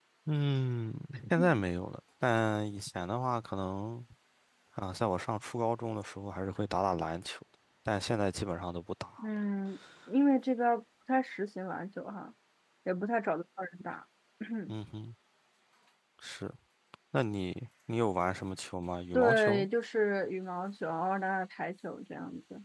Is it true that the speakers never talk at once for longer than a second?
Yes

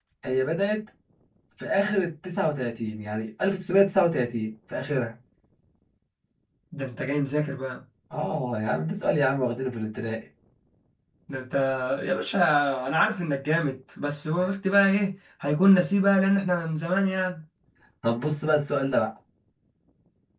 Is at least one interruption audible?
No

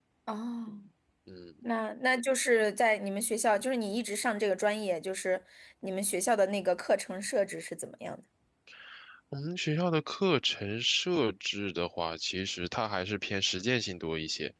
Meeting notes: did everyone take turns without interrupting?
Yes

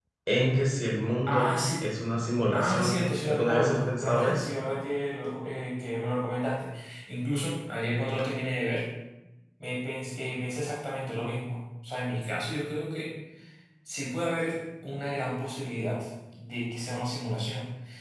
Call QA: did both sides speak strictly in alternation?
No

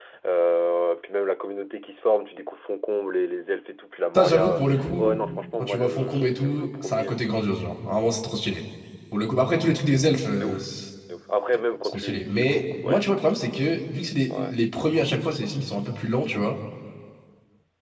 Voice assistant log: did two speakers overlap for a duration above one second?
Yes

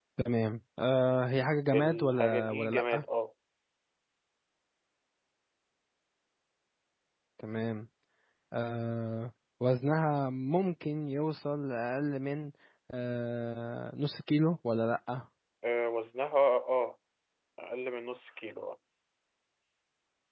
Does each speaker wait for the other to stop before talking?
No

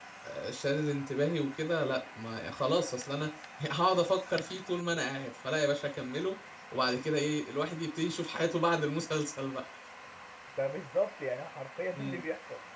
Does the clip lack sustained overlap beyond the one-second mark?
Yes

